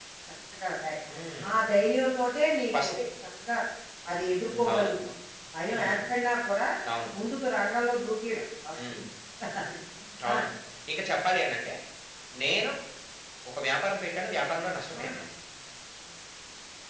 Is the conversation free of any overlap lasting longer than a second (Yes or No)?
Yes